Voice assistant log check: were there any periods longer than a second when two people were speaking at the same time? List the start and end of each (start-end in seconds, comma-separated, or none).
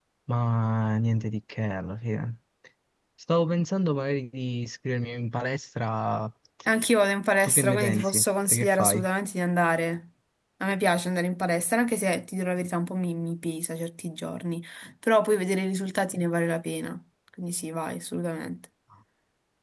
7.4-9.1